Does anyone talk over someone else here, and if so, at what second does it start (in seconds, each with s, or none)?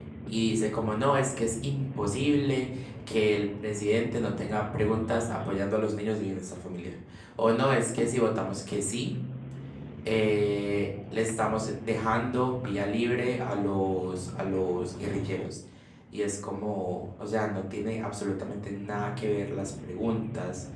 none